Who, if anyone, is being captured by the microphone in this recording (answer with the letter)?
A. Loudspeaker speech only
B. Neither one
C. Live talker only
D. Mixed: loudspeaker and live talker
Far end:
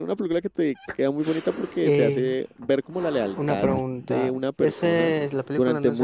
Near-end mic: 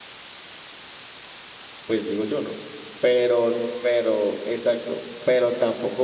C